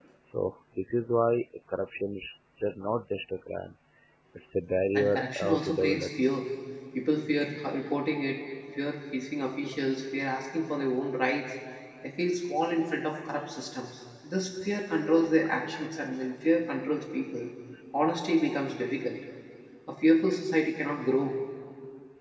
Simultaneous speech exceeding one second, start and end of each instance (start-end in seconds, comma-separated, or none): 4.9-6.3